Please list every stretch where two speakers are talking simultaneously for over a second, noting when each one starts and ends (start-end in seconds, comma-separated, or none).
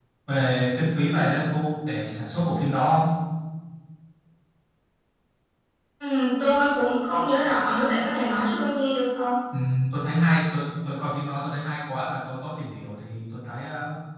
none